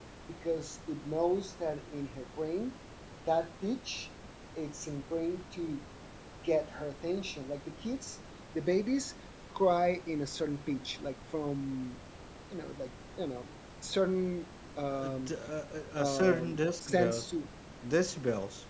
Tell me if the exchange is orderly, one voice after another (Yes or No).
No